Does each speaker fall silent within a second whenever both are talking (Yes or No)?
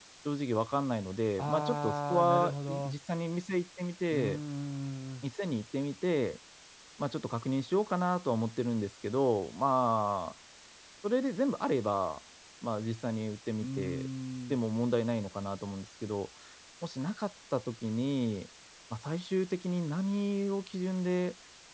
No